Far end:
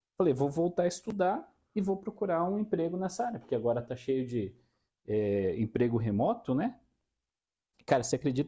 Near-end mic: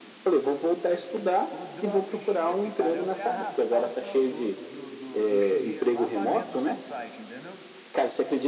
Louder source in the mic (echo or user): echo